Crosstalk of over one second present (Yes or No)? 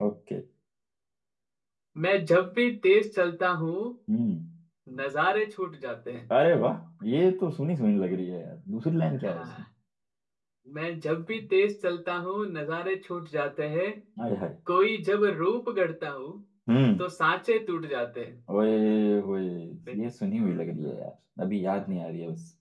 No